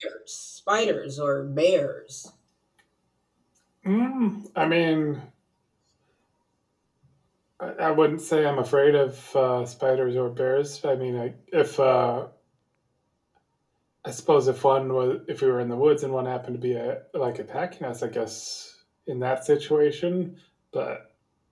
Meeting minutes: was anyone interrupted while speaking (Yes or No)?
No